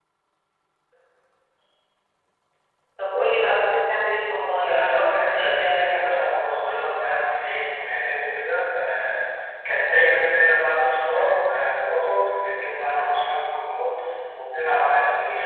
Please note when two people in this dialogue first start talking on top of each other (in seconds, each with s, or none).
4.6 s